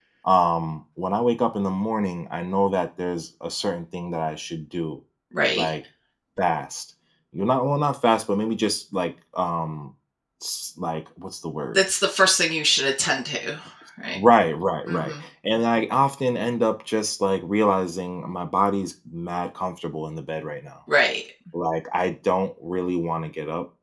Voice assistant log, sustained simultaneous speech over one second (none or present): none